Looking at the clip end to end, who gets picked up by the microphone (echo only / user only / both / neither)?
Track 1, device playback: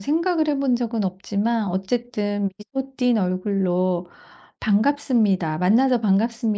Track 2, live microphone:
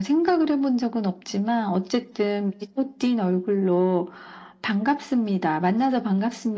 echo only